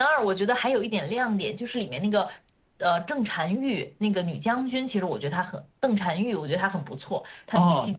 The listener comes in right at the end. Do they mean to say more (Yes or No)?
Yes